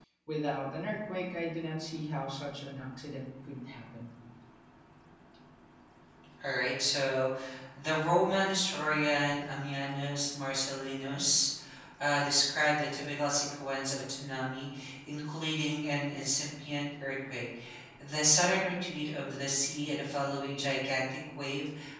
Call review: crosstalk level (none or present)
none